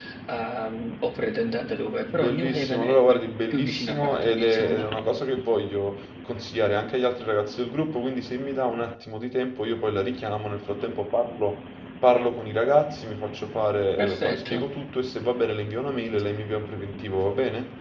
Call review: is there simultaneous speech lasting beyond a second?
Yes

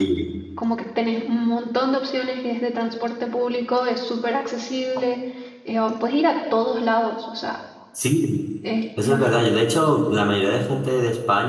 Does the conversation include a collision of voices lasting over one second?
No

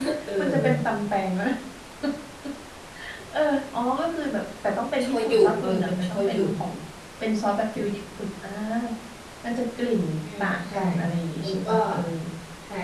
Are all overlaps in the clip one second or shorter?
No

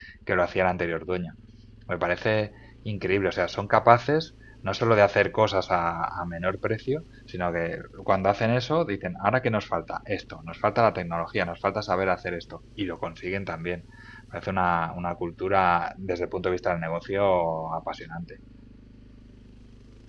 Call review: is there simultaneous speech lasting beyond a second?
No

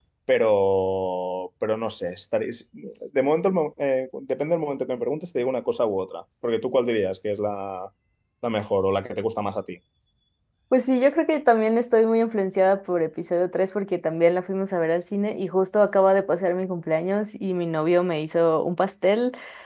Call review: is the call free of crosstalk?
Yes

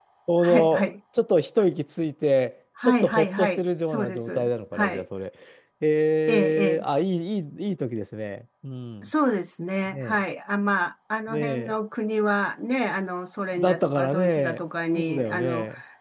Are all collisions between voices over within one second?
No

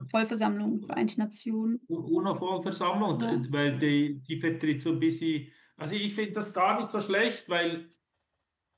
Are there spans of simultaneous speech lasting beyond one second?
No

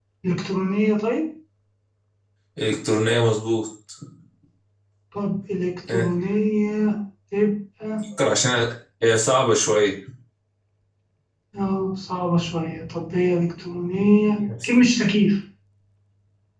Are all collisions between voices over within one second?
Yes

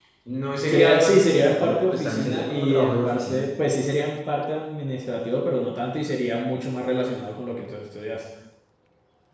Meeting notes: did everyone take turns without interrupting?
No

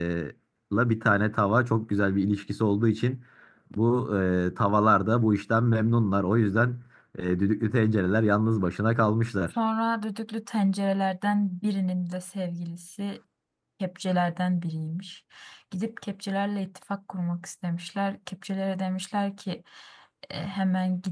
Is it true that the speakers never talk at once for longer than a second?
Yes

